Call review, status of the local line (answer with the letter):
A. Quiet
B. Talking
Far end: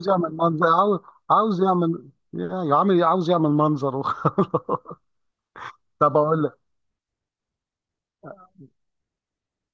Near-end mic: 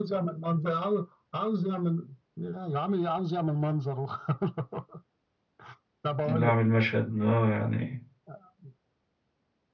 B